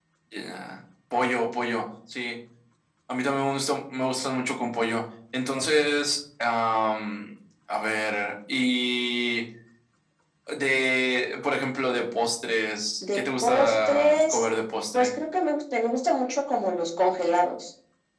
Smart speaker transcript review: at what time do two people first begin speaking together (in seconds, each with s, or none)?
13.0 s